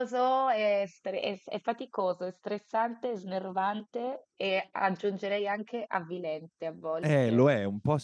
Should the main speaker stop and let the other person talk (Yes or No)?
Yes